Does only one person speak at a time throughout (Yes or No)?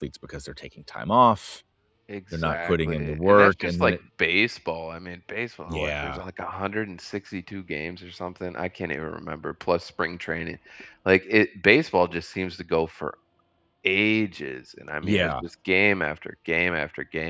No